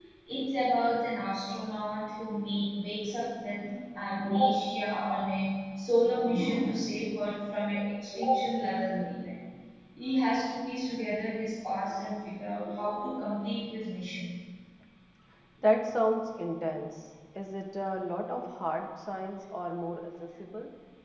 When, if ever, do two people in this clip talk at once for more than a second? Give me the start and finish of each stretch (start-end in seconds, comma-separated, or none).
none